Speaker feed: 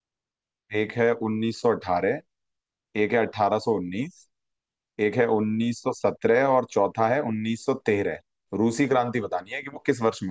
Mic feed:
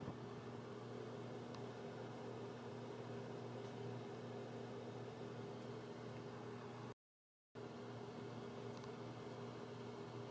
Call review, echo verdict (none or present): none